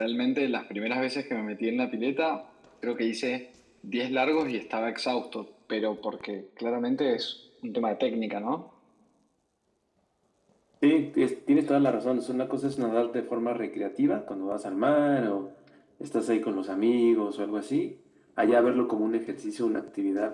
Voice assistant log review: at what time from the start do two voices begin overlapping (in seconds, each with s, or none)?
none